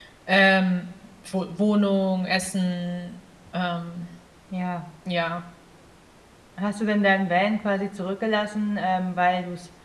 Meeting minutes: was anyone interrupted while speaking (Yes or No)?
No